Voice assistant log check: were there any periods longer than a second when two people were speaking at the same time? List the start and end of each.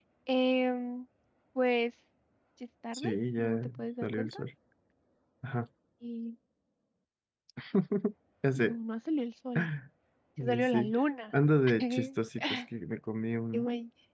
2.9-4.4

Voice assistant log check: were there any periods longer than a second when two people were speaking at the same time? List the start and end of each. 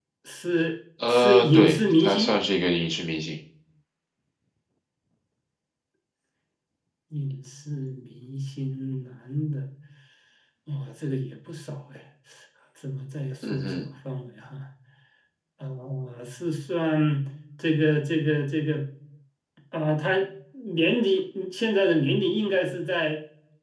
1.1-2.4

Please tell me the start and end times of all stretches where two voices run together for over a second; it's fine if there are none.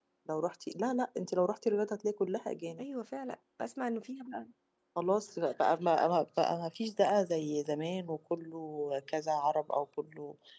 none

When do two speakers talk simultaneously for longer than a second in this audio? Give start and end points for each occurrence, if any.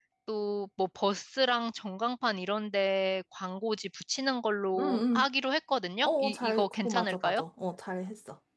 6.0-7.4

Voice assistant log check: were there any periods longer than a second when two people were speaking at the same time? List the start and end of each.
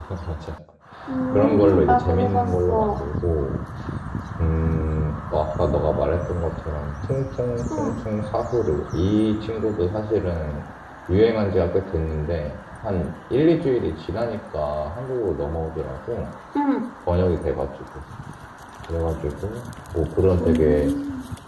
1.3-3.0

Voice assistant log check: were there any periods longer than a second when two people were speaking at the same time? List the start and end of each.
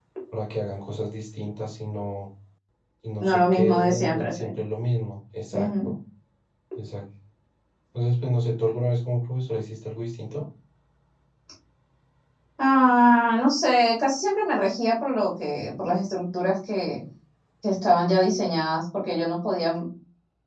3.2-4.4

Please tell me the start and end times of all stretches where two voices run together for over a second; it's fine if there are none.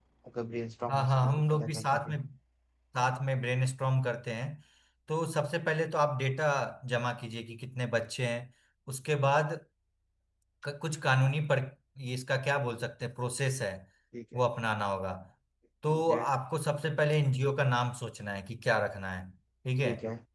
0.9-2.2

